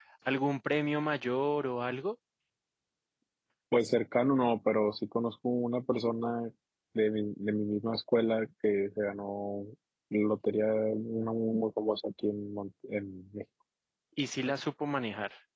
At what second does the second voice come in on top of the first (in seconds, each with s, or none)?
none